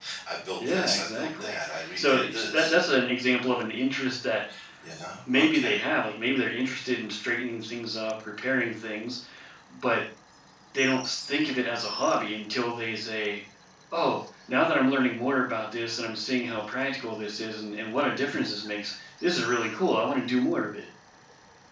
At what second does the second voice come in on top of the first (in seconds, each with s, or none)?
0.7 s